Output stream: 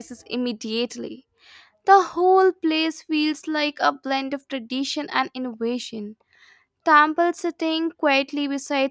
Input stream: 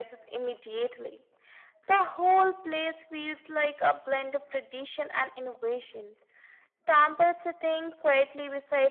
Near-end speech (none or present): none